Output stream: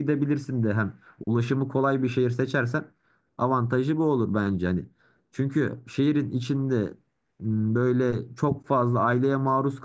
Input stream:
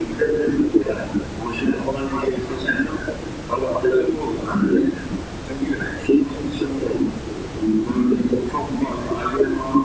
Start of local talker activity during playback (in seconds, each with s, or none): none